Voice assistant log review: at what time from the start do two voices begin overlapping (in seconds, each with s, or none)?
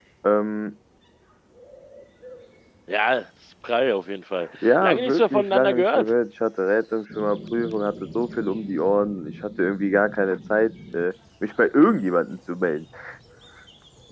4.5 s